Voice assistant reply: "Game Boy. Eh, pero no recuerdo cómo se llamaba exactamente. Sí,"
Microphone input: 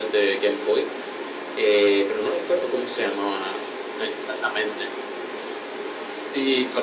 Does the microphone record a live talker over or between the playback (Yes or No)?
No